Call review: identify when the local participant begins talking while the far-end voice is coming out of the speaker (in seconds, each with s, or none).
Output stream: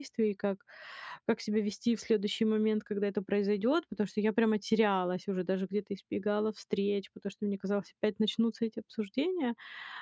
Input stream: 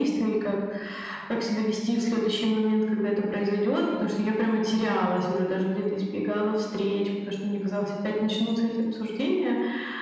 none